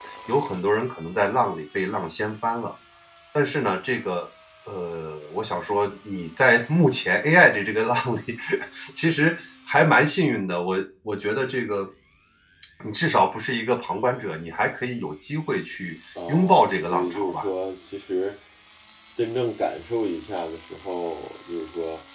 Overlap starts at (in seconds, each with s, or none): 16.1 s